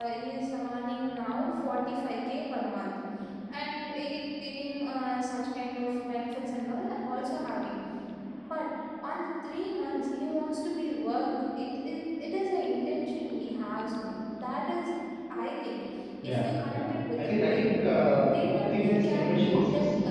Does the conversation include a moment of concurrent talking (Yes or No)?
Yes